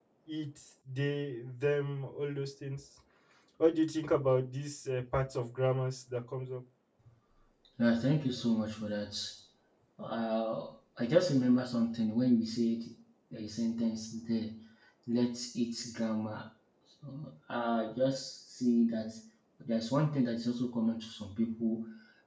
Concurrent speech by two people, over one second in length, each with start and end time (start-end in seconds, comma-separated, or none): none